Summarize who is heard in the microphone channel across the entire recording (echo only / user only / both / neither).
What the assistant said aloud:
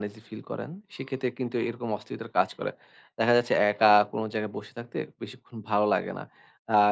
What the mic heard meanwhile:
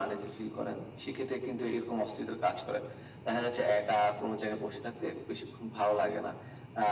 echo only